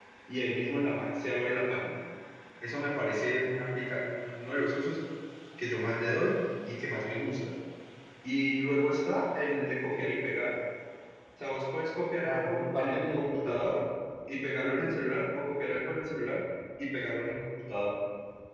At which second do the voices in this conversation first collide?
12 s

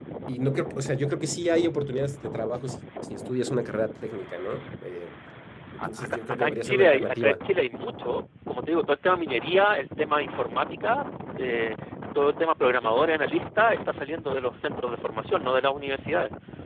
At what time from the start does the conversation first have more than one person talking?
6 s

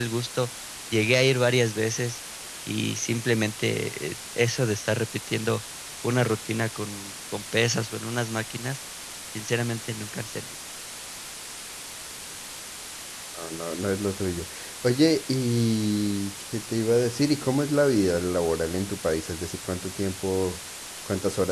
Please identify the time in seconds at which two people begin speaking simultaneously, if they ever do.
none

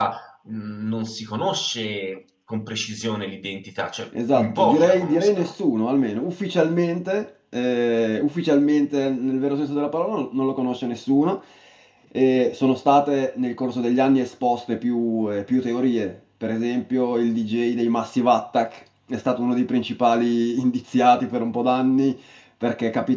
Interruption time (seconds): 4 s

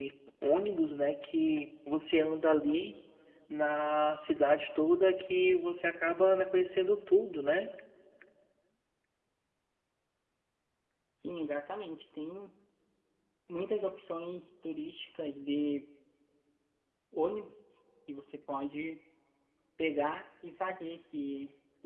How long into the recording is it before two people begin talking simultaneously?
none

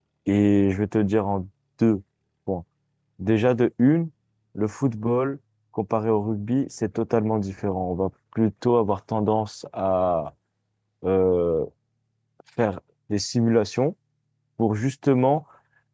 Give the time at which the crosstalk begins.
none

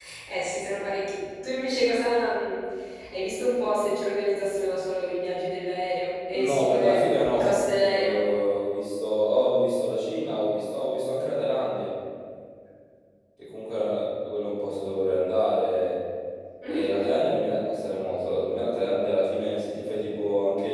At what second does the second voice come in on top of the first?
6 s

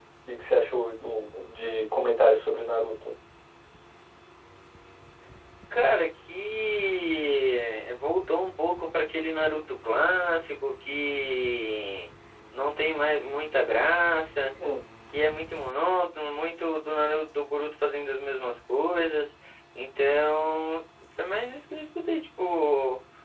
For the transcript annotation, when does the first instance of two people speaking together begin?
none

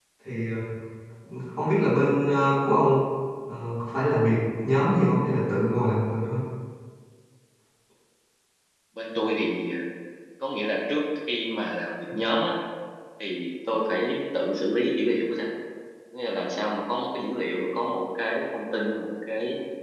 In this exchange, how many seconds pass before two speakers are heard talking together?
none

